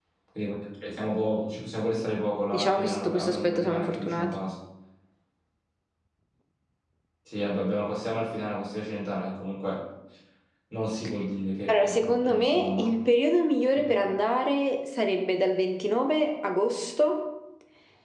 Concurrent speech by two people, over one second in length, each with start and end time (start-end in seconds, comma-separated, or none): 2.5-4.3, 11.7-12.9